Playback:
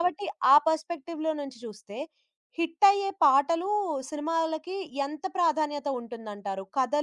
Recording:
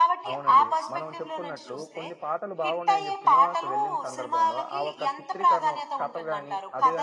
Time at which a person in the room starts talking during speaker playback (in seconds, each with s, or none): 0.3 s